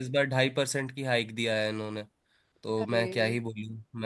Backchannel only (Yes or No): Yes